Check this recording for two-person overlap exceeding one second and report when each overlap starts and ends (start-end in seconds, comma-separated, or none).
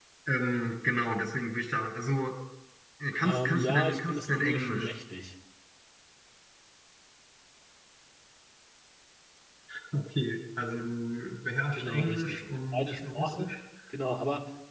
3.2-4.9, 11.7-13.5